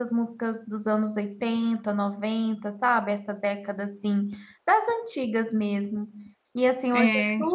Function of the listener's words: listening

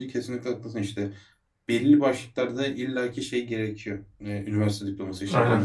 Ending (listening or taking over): listening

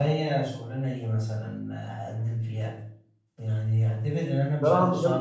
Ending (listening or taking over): taking over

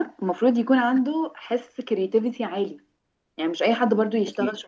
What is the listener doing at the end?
listening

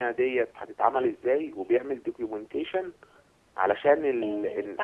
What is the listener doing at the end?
taking over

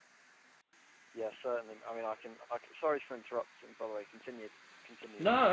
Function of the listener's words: taking over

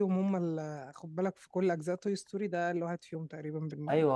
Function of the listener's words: taking over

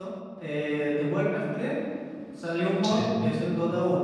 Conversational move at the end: listening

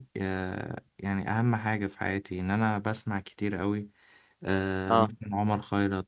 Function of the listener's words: listening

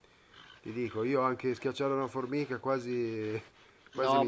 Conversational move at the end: taking over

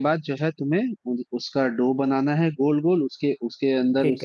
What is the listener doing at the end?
listening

